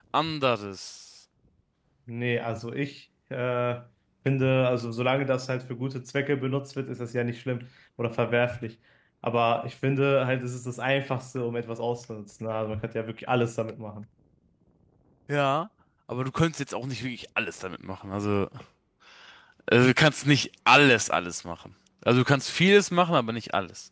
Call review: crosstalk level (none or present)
none